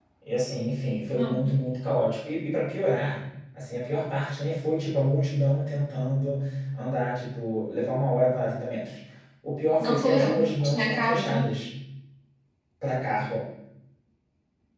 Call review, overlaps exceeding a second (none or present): present